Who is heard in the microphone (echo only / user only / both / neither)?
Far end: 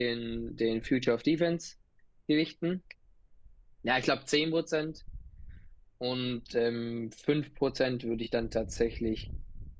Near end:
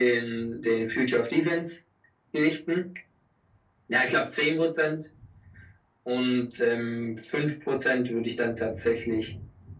echo only